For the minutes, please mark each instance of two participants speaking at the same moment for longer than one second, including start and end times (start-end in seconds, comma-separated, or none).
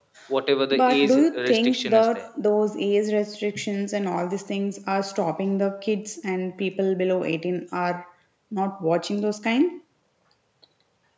0.7-2.3